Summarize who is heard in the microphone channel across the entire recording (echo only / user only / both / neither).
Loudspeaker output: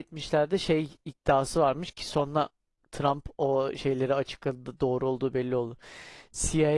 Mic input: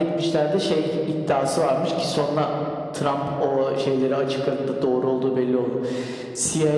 echo only